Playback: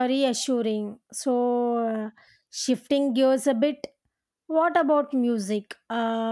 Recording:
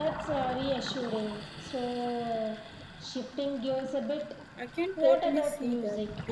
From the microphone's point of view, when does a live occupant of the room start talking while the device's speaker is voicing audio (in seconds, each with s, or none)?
4.6 s